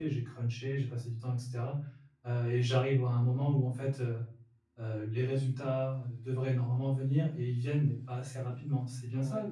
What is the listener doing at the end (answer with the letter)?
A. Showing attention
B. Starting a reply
B